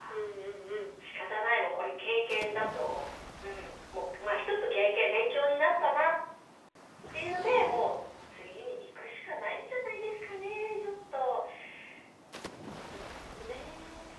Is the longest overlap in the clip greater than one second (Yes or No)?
No